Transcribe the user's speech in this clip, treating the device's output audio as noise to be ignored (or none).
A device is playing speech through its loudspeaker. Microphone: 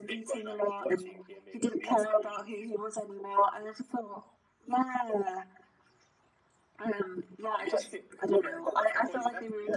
none